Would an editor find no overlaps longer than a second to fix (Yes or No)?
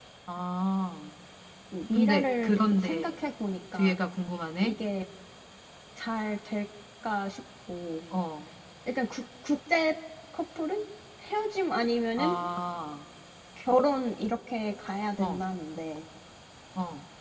No